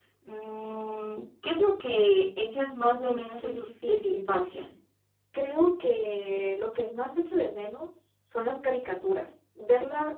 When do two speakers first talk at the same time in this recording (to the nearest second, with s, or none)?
3 s